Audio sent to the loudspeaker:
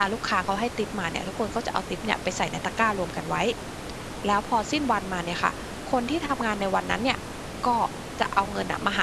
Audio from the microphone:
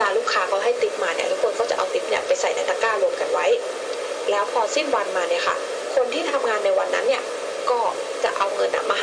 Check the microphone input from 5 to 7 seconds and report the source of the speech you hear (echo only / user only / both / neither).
echo only